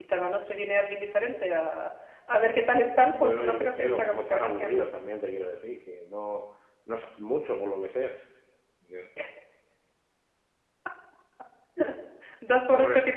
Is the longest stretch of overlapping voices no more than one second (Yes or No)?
No